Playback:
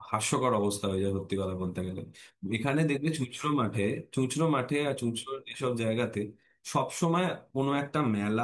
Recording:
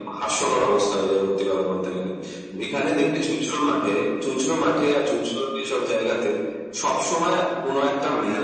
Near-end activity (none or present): none